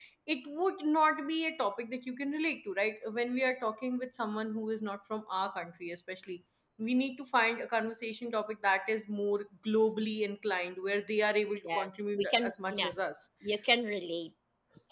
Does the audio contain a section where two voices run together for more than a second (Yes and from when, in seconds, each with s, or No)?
Yes, from 11.6 s